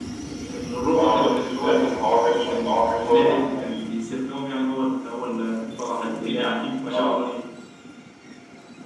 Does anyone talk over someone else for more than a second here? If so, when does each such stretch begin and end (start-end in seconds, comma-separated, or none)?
0.9-3.9